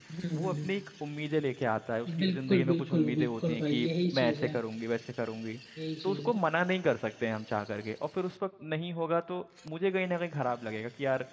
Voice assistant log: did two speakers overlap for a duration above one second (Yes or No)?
Yes